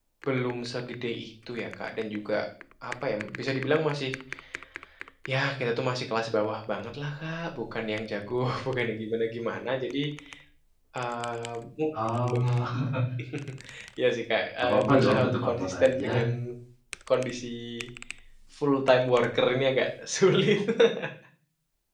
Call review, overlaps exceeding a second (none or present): present